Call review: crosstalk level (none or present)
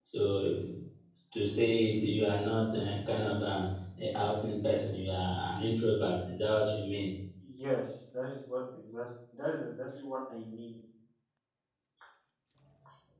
none